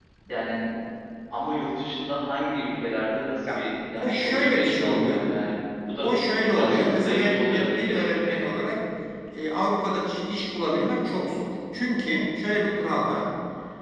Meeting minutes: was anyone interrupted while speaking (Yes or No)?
Yes